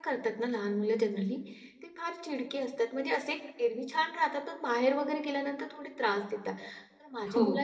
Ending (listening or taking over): listening